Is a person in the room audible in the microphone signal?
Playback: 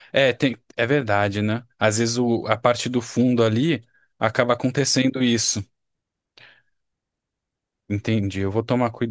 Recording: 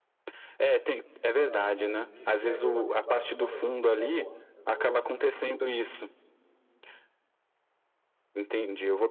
Yes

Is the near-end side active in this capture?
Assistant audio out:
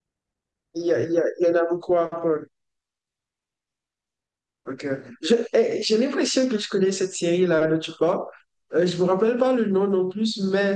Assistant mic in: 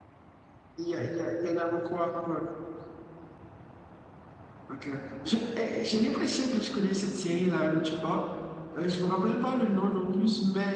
No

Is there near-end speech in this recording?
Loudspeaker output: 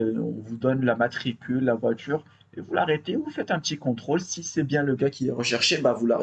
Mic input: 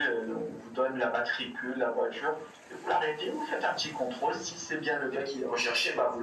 No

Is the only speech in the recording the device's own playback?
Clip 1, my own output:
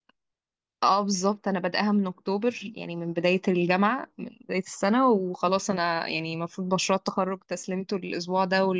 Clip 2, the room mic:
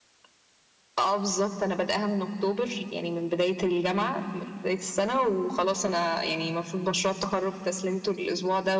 Yes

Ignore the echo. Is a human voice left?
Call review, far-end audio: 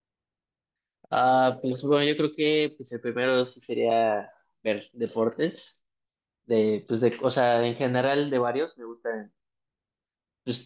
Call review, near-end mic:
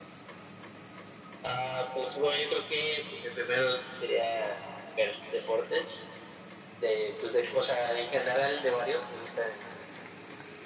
No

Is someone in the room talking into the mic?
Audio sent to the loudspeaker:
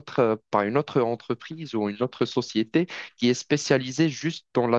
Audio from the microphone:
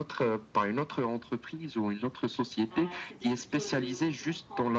Yes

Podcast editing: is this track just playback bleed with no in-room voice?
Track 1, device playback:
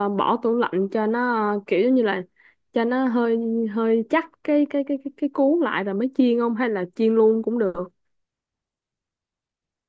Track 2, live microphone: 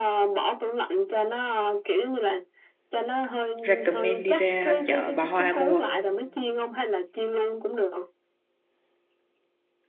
No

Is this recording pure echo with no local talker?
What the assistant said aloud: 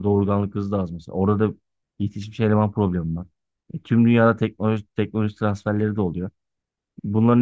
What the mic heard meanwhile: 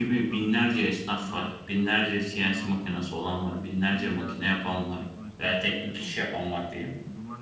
No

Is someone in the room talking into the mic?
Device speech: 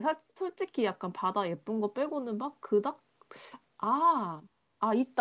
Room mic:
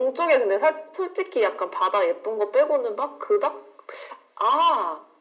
No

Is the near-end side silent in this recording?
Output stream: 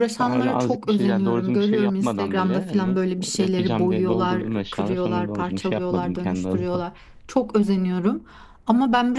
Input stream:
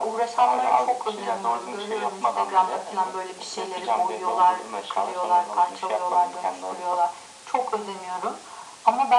Yes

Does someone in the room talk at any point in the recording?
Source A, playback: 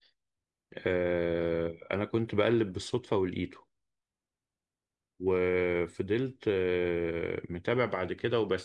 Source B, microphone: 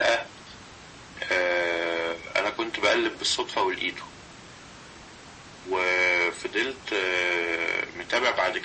No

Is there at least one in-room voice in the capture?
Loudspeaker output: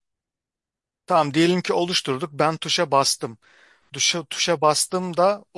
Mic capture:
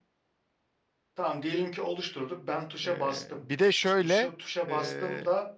Yes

